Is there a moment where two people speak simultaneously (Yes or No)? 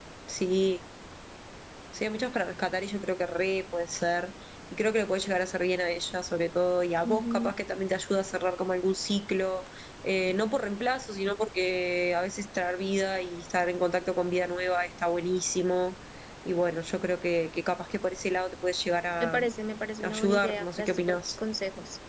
Yes